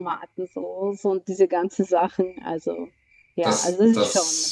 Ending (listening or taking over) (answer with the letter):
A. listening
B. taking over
B